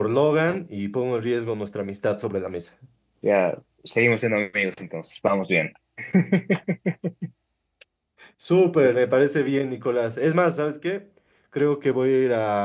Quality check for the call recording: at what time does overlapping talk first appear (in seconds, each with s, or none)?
none